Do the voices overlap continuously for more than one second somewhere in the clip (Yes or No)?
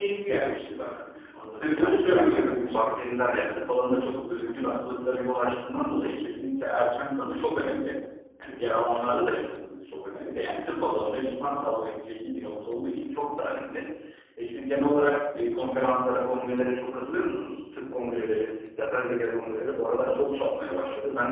Yes